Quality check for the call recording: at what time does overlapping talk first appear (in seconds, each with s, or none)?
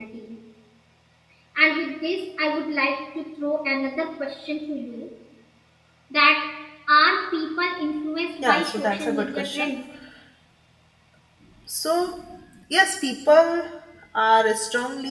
8.4 s